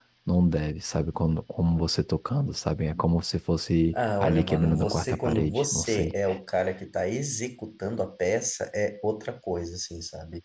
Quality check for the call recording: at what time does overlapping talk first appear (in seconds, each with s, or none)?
3.9 s